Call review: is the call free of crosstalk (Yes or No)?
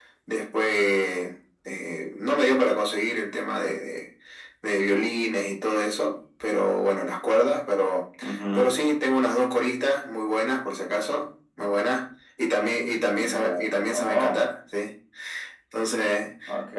No